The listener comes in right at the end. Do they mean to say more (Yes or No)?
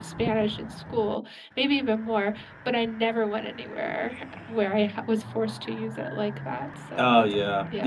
Yes